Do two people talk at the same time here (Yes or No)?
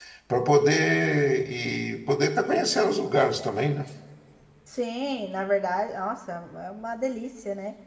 No